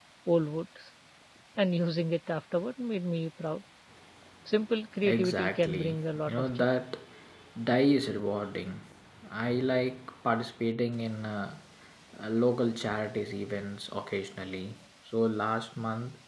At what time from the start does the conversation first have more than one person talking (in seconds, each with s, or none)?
5.0 s